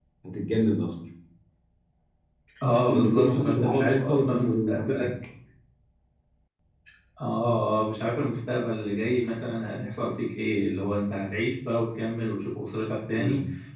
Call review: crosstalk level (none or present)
present